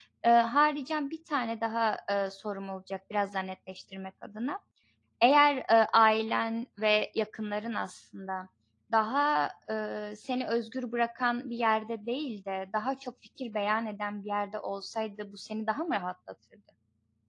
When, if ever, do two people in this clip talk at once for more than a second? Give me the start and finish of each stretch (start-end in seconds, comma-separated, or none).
none